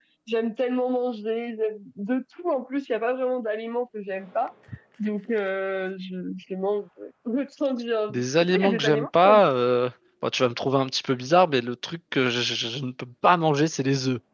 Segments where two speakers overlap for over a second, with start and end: 8.1-9.4

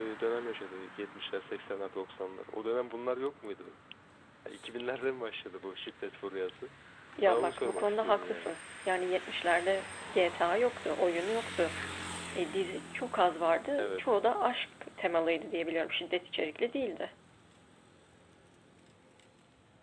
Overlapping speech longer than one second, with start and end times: 7.2-8.5

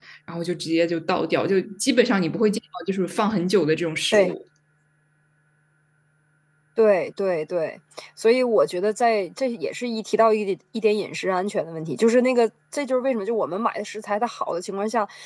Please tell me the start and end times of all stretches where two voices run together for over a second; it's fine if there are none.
none

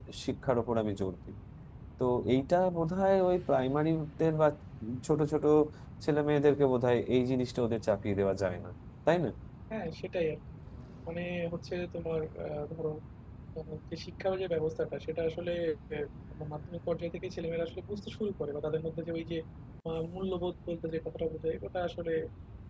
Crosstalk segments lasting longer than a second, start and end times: none

